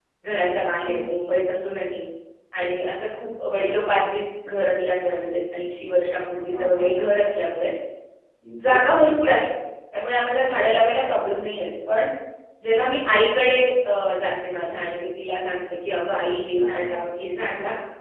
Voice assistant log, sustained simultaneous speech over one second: none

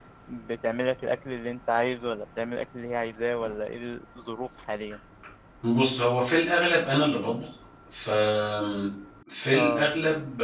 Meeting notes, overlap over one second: none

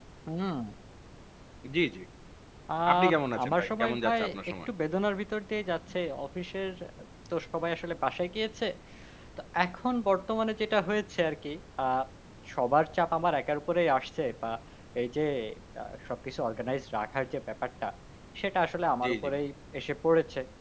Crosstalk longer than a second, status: present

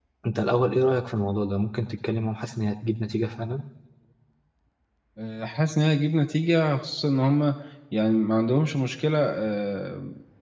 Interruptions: none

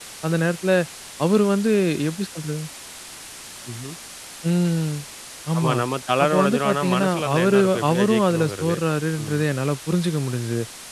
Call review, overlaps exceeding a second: present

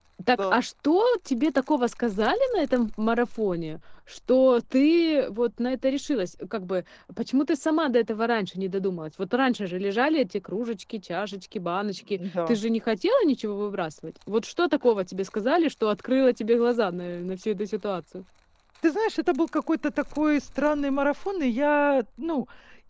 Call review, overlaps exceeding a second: none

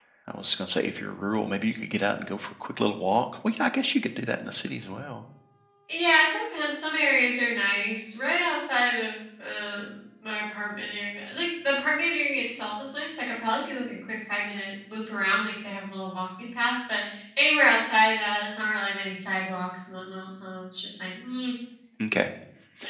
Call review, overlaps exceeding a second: none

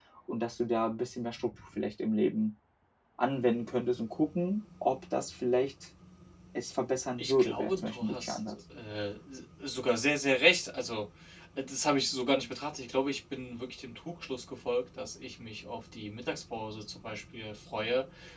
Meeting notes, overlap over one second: present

